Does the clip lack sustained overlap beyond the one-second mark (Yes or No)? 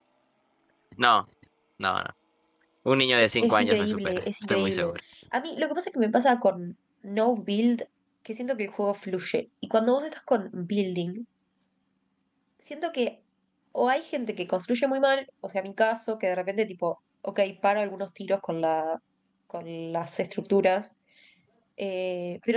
No